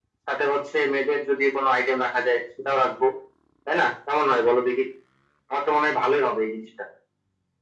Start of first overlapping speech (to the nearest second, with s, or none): none